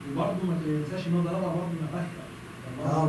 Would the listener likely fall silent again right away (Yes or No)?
No